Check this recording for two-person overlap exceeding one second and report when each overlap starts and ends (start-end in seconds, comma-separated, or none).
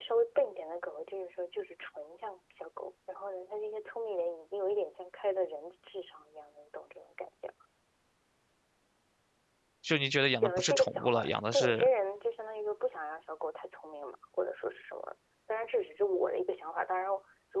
10.4-11.9